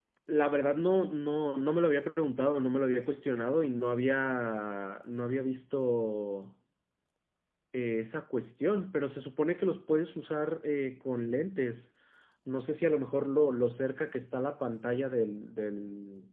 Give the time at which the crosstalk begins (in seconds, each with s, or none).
none